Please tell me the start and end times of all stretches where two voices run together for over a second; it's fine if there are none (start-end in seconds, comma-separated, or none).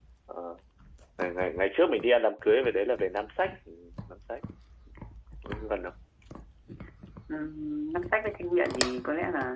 none